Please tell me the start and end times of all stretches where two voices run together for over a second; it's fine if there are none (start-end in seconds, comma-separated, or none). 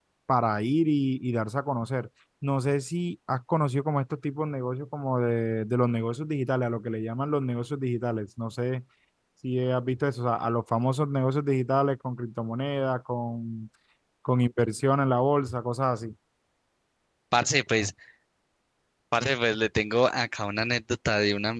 none